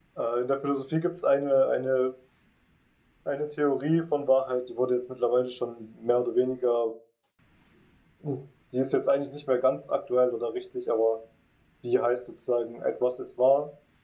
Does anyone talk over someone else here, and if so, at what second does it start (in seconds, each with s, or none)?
none